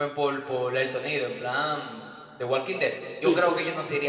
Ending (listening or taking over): listening